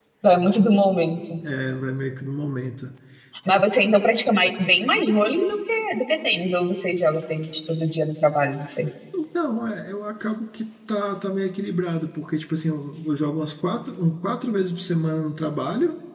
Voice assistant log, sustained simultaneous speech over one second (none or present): none